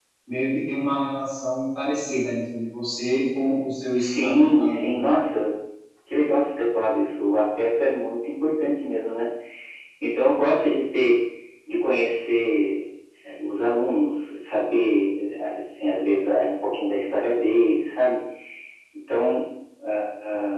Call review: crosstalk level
present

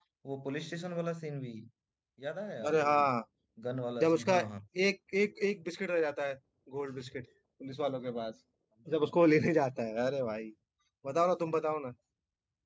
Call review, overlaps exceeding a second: none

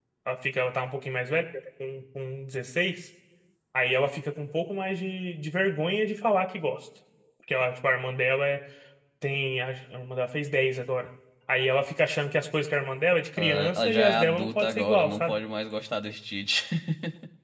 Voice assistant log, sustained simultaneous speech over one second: present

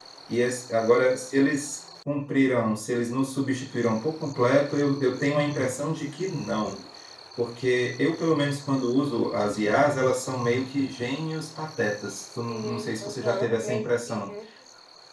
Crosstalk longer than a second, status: present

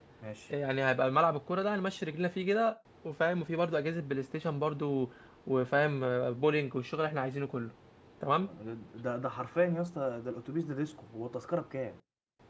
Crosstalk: none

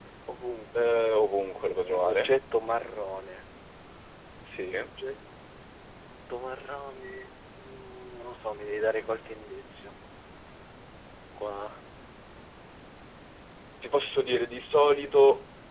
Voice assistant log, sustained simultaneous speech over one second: none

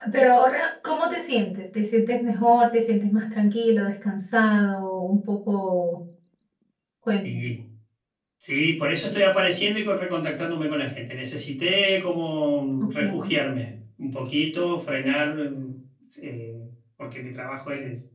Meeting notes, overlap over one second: none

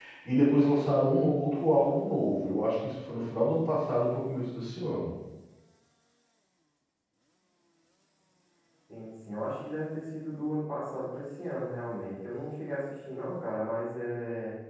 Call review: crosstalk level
none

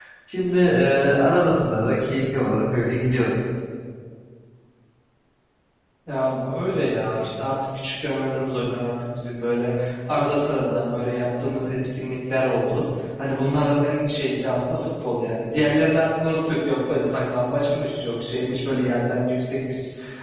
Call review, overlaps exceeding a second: none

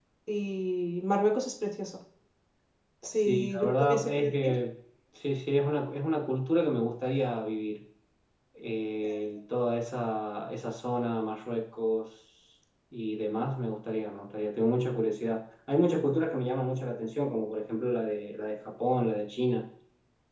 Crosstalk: present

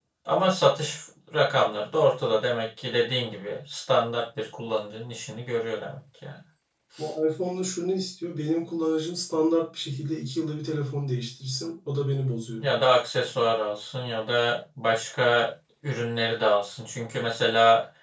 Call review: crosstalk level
none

